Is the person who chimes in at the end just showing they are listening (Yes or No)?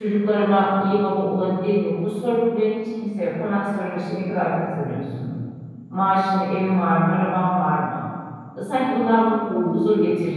No